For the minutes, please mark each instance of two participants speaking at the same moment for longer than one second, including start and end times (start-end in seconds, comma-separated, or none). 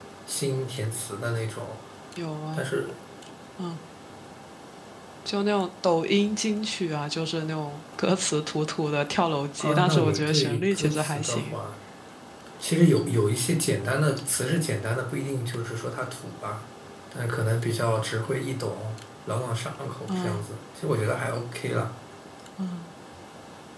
9.6-11.6